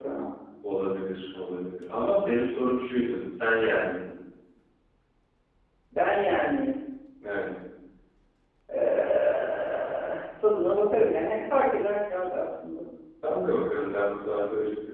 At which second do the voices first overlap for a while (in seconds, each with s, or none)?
none